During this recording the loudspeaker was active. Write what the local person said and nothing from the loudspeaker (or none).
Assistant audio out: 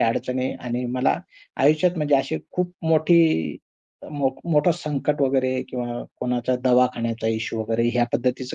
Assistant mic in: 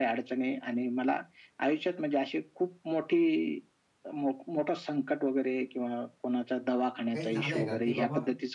काही झालंय का, की बाबा